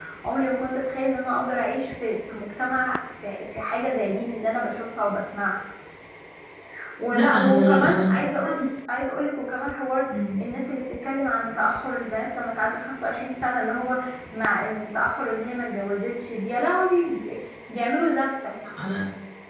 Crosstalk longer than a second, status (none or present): present